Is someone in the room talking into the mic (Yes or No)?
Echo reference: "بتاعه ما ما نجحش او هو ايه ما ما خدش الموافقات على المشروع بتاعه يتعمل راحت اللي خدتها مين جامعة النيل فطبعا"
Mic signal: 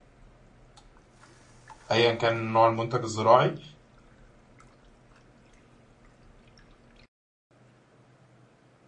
Yes